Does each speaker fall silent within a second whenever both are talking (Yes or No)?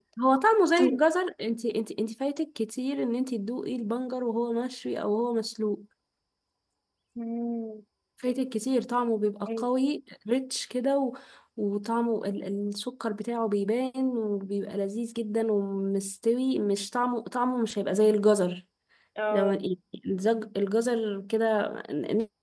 Yes